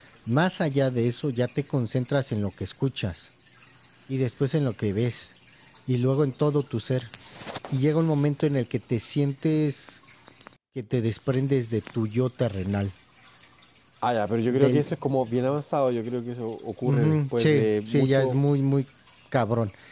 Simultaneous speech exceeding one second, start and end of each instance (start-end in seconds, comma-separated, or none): 16.8-18.4